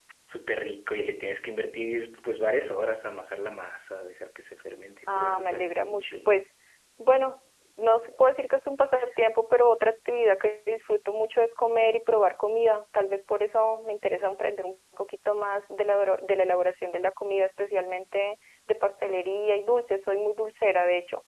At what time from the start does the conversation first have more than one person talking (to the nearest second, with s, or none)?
5 s